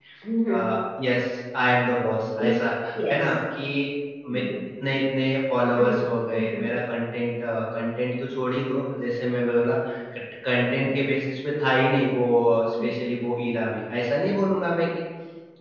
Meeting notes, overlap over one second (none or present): none